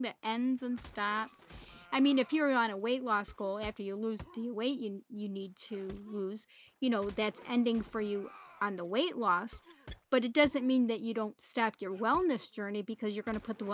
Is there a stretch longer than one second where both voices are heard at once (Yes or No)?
No